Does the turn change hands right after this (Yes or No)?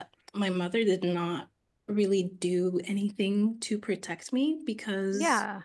No